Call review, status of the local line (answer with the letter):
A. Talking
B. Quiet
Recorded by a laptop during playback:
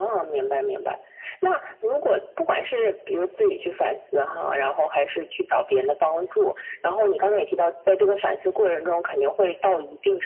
B